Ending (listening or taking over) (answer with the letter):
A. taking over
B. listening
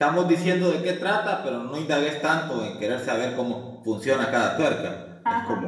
B